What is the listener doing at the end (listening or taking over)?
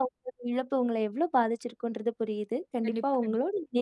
listening